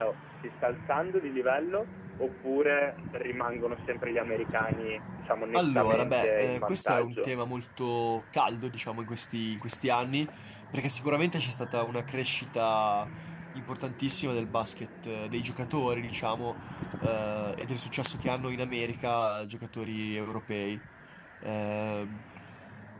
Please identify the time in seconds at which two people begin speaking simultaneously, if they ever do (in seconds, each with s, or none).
5.5 s